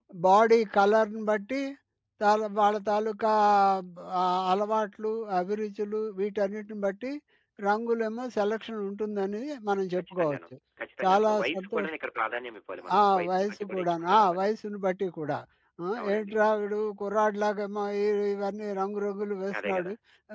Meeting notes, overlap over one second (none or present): present